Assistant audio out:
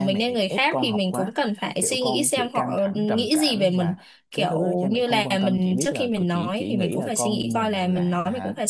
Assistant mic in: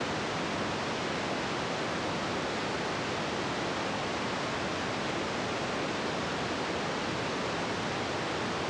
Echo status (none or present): none